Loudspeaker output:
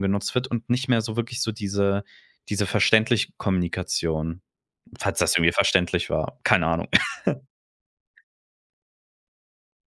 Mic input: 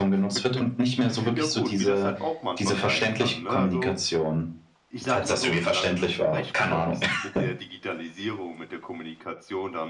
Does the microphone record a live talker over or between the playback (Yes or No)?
Yes